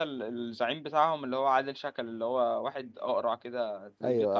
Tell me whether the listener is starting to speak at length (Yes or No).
Yes